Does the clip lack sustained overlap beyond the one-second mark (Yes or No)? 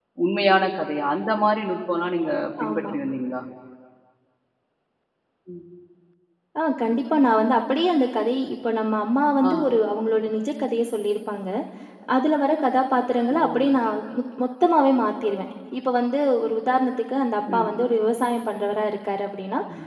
Yes